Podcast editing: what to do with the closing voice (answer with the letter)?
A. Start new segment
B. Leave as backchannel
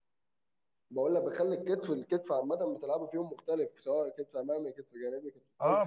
A